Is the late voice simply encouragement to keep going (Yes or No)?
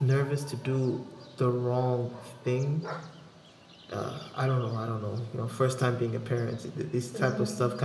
Yes